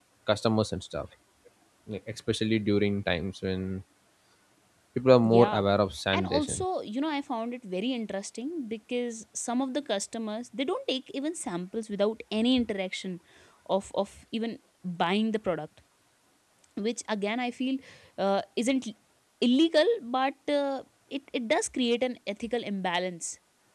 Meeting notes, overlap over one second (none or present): none